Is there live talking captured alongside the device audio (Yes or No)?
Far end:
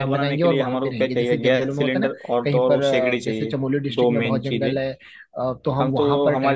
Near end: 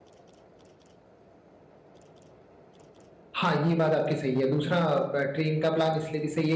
Yes